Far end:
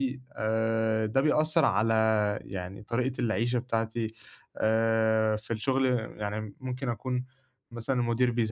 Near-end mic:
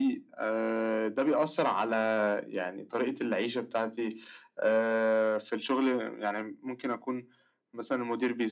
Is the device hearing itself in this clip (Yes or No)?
Yes